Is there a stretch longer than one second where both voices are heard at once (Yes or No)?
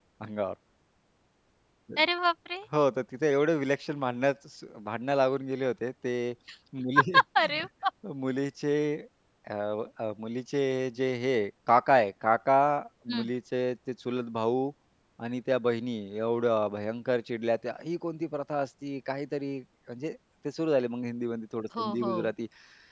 No